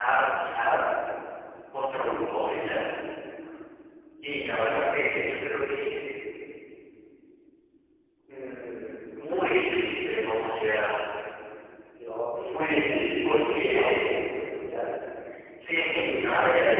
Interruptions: present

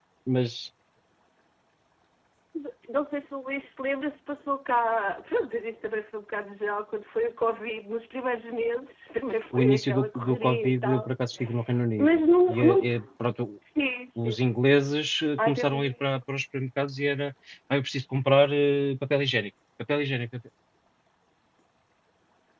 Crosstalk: present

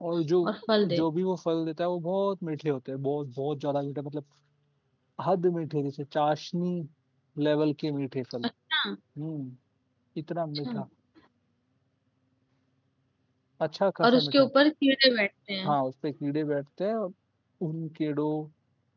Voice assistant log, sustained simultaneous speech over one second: none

